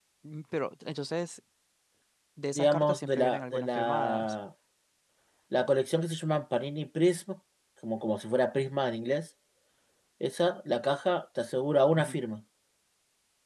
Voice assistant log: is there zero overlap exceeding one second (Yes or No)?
No